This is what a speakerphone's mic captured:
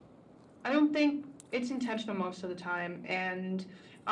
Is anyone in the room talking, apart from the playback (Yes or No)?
No